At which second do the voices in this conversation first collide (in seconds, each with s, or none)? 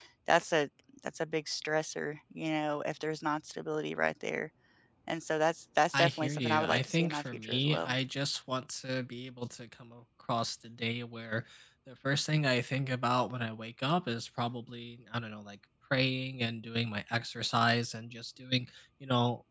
5.9 s